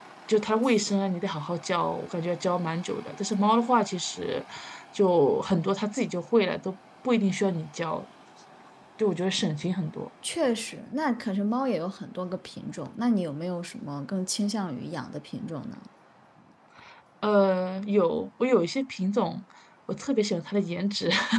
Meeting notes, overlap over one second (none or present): none